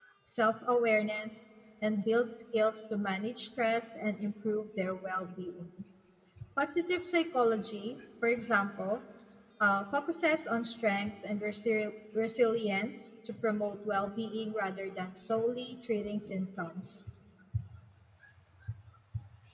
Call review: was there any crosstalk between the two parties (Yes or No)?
No